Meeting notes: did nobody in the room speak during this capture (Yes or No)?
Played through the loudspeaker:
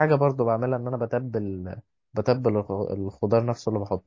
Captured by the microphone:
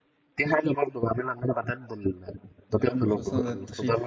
No